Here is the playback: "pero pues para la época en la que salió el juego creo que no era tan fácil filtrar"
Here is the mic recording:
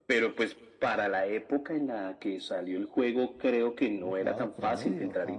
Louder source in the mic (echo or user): echo